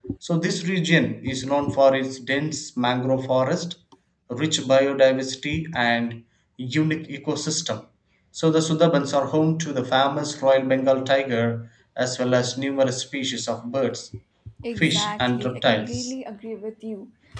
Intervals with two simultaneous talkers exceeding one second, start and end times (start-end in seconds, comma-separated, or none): 14.8-16.1